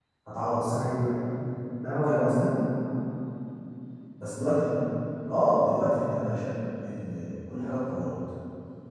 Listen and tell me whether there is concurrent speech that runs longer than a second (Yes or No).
No